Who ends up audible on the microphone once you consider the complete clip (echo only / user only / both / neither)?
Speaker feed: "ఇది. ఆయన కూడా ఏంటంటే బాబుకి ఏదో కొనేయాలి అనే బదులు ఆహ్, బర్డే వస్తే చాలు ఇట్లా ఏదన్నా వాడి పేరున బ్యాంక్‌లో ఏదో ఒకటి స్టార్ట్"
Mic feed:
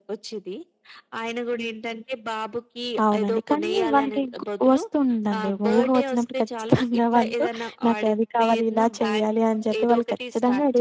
both